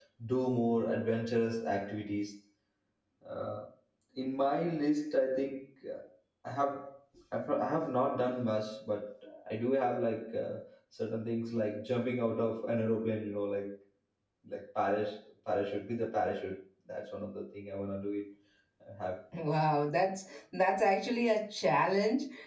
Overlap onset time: none

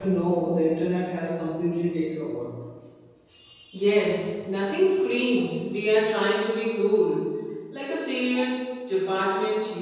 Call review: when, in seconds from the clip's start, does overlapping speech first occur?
none

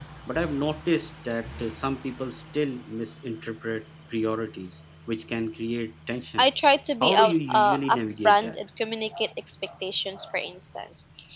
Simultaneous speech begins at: 7 s

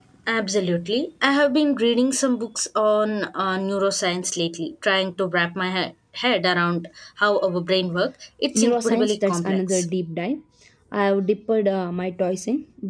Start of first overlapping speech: 9 s

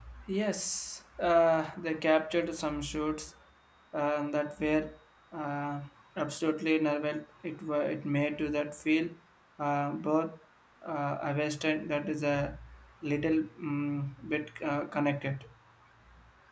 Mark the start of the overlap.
none

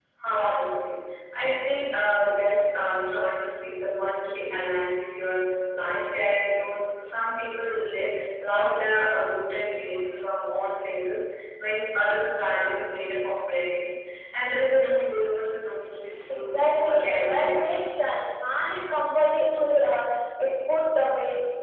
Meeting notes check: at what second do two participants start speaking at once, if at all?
16 s

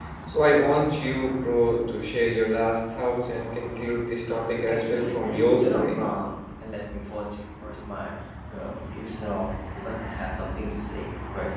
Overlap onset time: 4 s

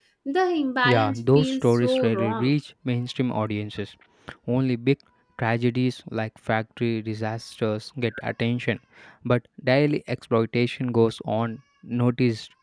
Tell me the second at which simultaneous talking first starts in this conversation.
1 s

